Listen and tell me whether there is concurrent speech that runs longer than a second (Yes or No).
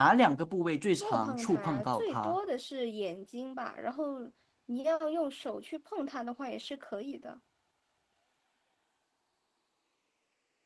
Yes